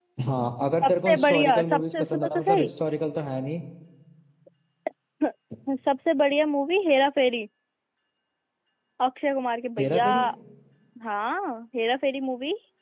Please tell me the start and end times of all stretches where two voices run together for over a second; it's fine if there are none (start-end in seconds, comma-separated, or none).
0.8-2.7